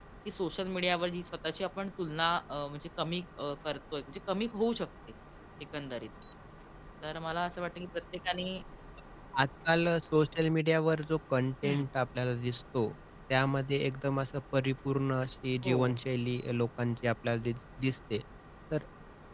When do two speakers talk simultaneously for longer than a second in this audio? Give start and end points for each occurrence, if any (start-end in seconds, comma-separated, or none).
none